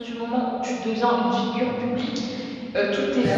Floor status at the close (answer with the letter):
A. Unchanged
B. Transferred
A